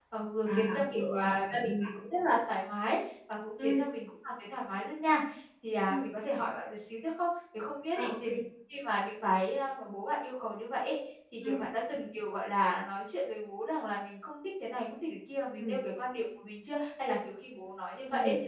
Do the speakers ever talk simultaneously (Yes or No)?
Yes